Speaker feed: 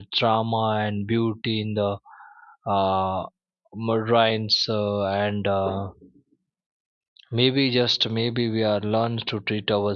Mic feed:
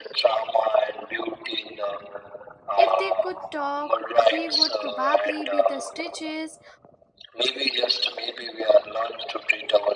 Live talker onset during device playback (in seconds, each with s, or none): 2.8 s